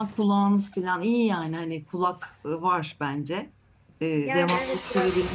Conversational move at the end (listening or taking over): taking over